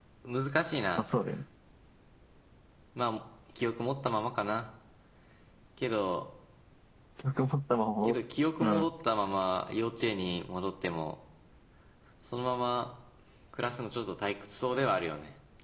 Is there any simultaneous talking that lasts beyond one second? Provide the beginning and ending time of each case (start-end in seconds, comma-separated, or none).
none